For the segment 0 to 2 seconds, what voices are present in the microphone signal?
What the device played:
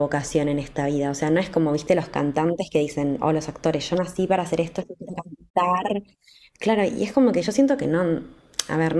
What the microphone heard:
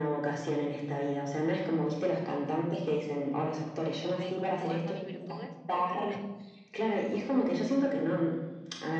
echo only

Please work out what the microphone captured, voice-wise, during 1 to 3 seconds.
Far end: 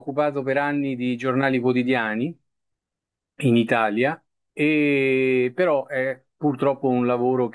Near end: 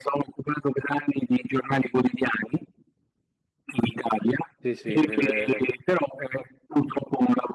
echo only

